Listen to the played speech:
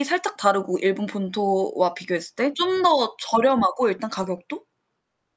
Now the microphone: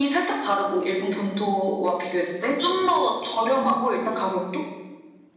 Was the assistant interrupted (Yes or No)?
No